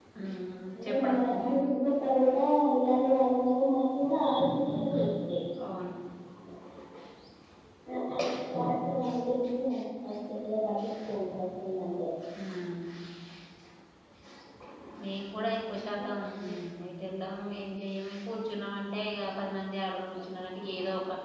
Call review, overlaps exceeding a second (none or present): none